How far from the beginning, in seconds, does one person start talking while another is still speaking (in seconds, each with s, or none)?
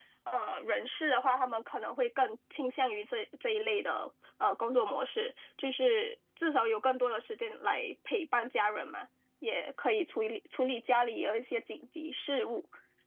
none